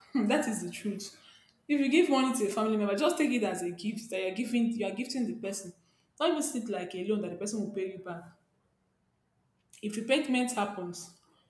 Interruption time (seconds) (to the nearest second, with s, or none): none